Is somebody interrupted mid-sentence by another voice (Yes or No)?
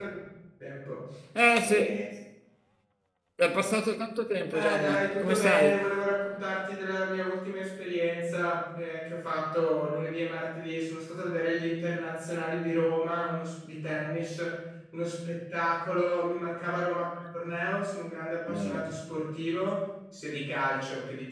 Yes